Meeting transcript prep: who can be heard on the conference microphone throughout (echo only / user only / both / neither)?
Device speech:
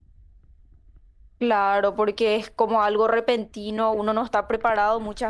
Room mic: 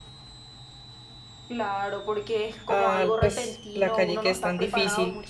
both